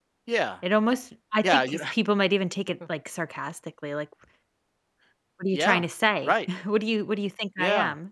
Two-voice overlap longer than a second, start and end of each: none

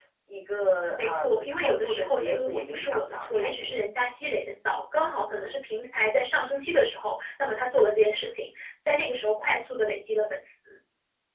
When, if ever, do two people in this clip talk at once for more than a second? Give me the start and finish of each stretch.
1.0-3.8

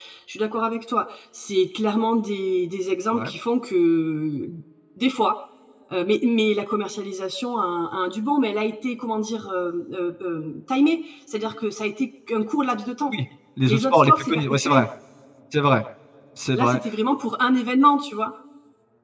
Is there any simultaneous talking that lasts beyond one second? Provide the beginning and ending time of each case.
13.7-14.9

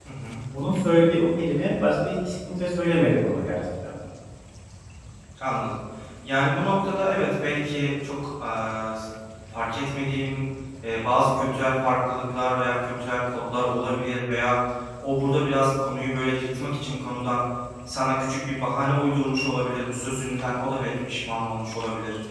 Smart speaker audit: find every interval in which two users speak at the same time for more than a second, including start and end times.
none

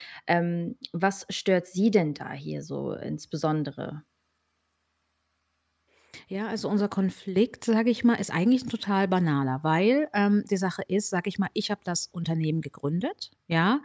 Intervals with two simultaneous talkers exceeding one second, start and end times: none

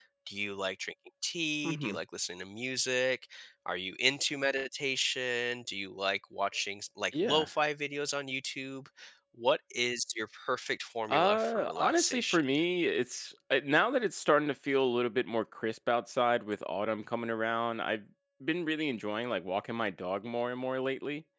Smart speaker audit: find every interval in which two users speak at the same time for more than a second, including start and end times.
11.1-12.4

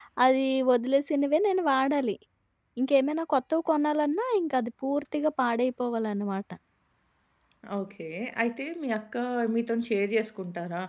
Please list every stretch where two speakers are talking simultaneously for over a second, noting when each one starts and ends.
none

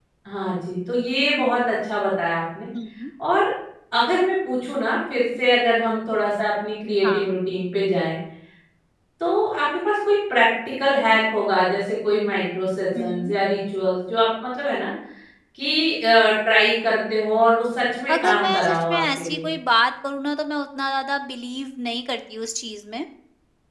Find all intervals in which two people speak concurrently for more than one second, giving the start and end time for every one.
18.1-19.5

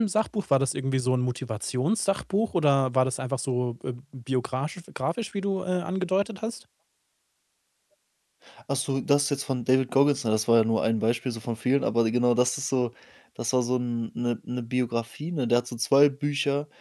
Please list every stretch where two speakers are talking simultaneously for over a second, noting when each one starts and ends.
none

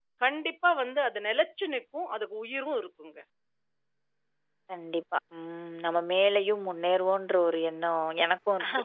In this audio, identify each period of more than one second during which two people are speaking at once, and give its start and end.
none

